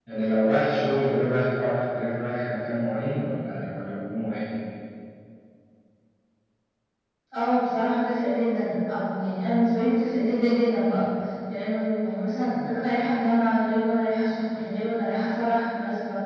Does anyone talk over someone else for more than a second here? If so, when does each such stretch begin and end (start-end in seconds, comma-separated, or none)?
none